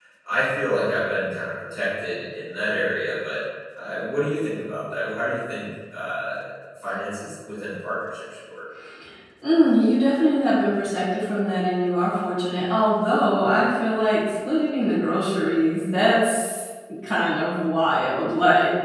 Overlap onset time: none

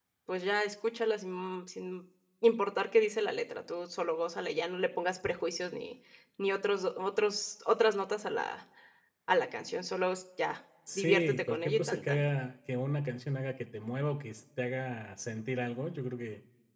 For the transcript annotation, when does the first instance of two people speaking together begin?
10.9 s

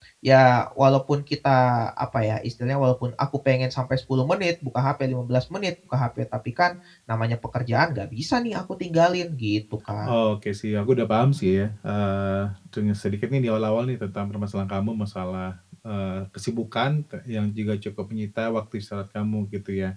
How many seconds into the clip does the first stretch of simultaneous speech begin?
none

